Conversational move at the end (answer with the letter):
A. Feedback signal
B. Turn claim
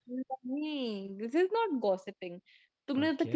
A